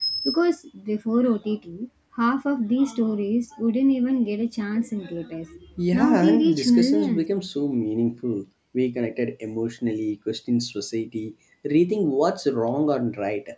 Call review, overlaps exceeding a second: present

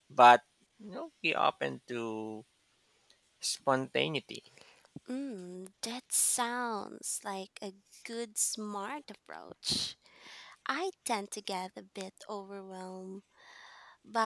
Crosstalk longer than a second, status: none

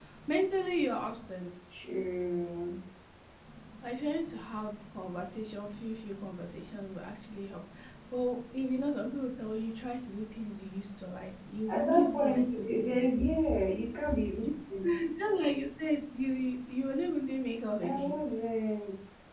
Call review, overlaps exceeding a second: present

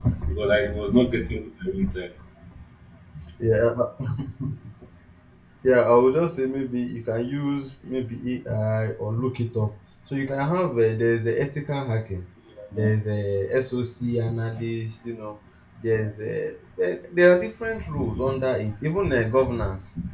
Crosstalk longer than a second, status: none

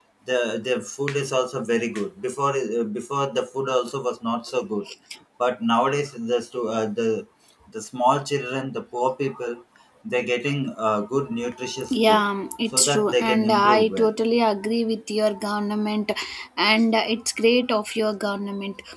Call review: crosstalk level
present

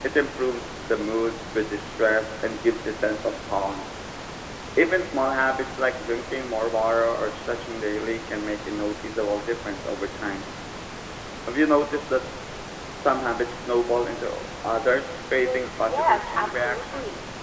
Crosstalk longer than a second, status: present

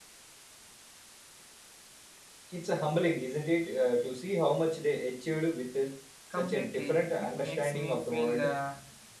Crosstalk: present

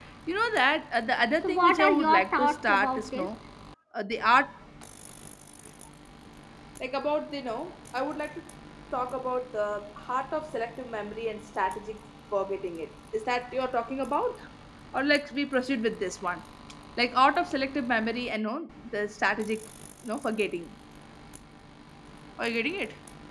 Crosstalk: present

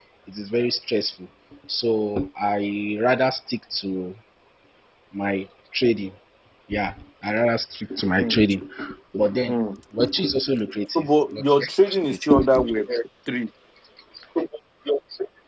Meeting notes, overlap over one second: present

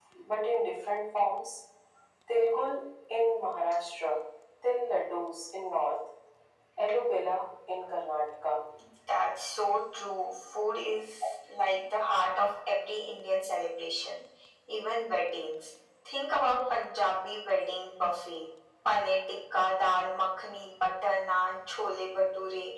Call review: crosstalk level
none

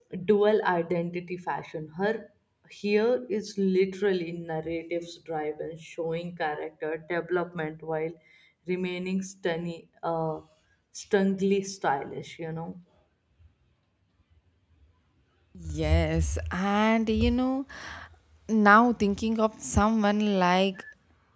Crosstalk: none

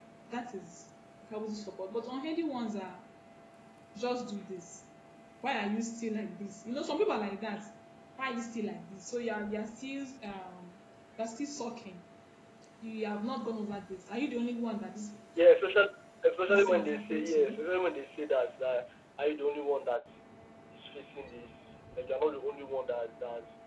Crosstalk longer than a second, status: present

